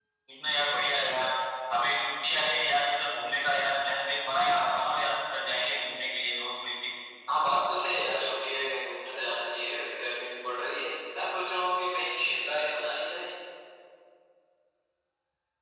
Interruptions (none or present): none